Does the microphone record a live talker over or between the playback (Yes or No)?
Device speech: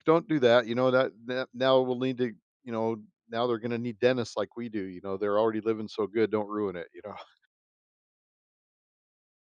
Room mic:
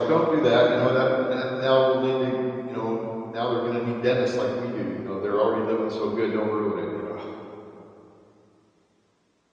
No